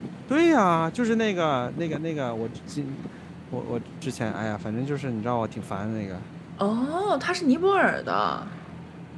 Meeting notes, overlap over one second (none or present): none